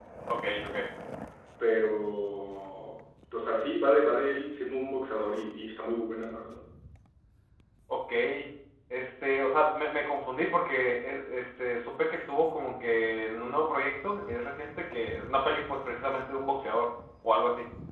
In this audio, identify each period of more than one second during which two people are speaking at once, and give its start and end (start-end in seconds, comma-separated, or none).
none